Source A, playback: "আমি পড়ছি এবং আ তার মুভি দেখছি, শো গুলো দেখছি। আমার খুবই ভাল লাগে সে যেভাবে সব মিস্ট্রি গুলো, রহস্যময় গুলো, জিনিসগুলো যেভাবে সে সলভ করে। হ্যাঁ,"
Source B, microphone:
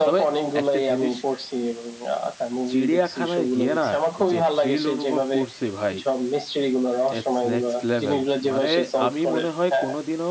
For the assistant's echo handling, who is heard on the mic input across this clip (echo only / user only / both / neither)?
both